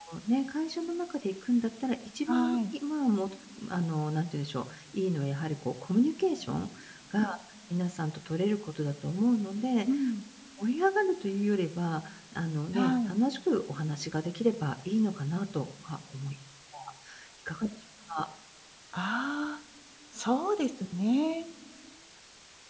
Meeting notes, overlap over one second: none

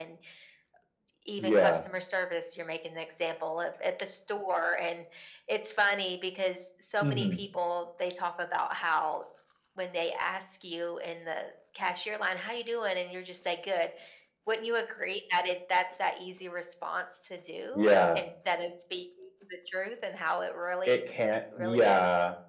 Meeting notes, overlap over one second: none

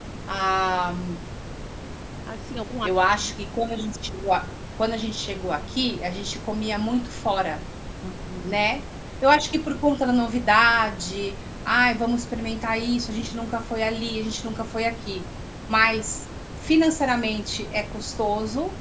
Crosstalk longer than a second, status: none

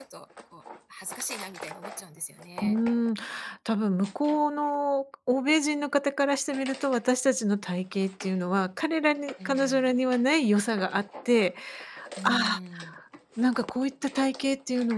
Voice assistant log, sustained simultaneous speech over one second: none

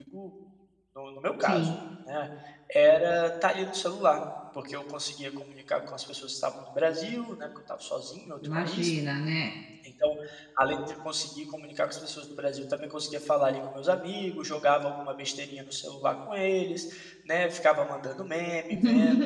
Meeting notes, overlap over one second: none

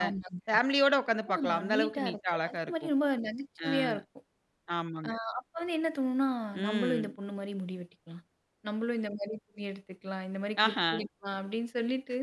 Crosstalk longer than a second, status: present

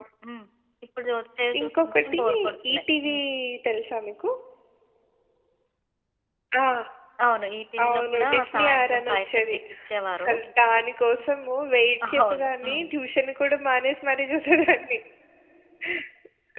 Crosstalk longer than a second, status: present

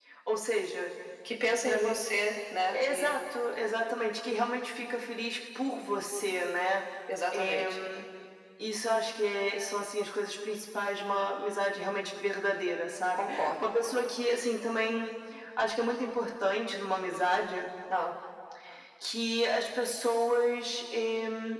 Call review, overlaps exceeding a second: none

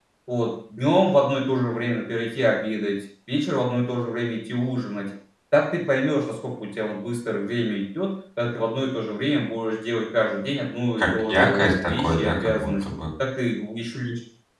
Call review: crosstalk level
present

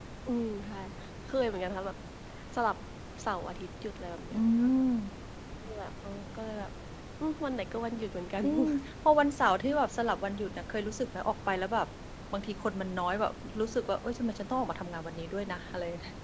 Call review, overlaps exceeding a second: none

